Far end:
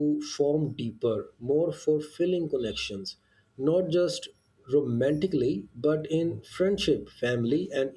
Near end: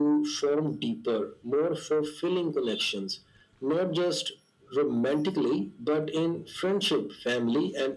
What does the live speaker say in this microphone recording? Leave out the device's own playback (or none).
none